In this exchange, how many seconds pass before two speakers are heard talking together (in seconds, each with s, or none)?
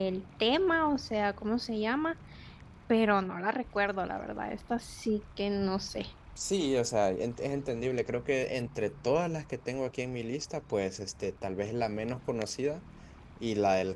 none